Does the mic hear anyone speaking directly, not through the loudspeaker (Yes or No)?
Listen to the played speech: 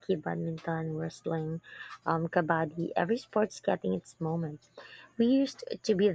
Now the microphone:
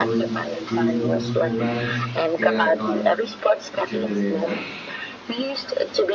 Yes